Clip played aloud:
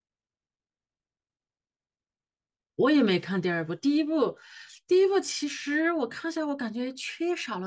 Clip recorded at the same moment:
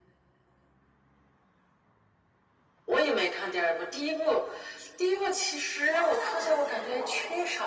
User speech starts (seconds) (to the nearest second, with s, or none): 6 s